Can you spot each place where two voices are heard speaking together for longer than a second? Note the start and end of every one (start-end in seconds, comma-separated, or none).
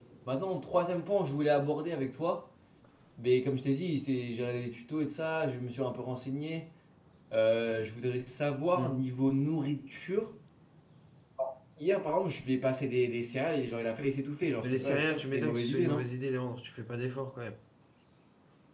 14.6-16.0